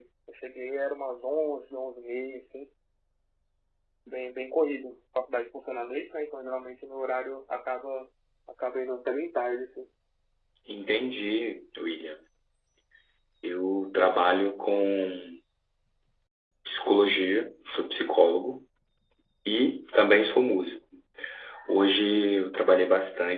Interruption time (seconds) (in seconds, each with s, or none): none